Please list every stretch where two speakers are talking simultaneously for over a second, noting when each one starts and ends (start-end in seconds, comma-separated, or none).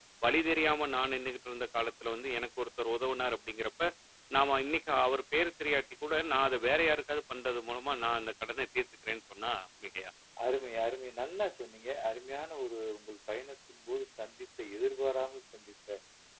none